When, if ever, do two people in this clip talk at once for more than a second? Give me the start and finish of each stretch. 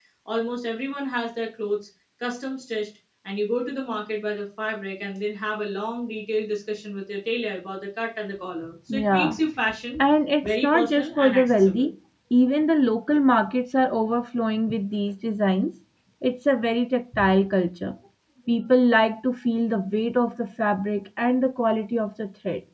10.4-11.9

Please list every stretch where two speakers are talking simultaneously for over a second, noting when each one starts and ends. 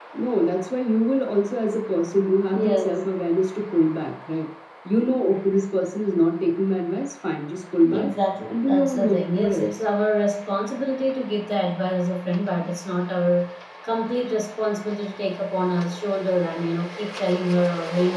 8.5-9.8

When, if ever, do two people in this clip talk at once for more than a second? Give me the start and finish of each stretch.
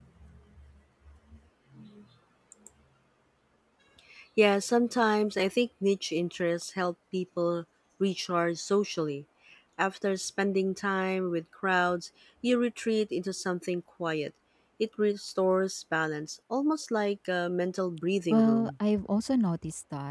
none

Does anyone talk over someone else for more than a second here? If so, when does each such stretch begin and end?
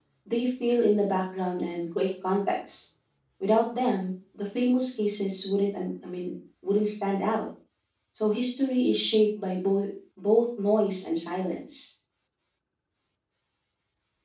none

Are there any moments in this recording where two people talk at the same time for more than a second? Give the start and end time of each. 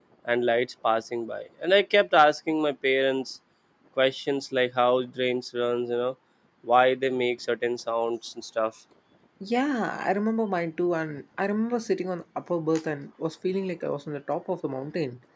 none

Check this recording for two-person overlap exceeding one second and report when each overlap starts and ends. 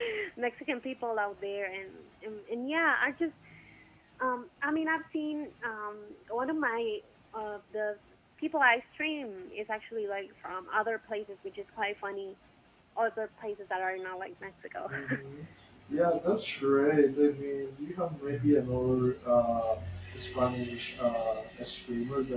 none

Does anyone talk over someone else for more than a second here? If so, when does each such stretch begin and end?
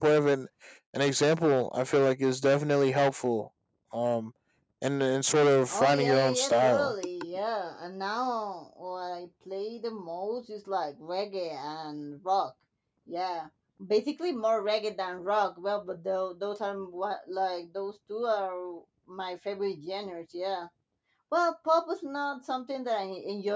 5.7-6.9

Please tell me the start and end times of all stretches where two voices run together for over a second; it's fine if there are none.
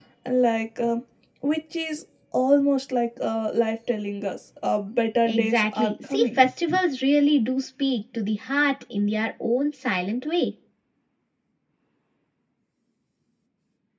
5.2-6.5

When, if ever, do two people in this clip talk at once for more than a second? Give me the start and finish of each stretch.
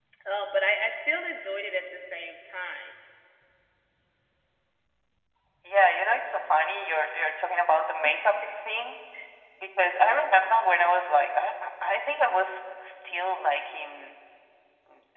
none

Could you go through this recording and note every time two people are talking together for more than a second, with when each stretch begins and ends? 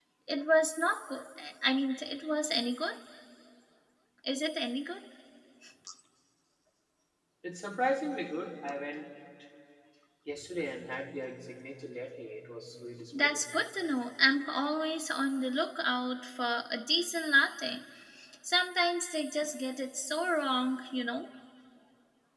none

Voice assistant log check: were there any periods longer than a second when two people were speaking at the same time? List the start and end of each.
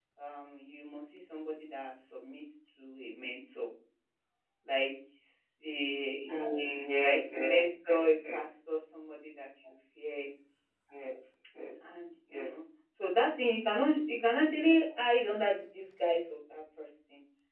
7.0-8.4

